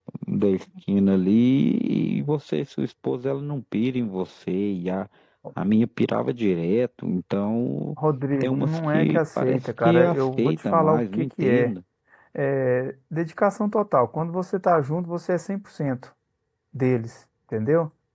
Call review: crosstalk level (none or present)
present